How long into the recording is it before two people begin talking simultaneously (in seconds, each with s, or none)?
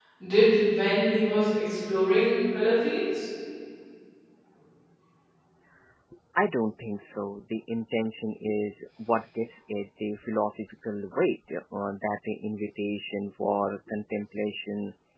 none